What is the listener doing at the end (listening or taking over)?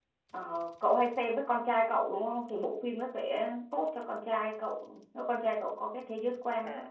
taking over